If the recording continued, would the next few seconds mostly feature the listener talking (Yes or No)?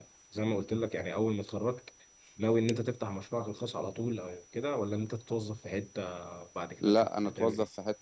Yes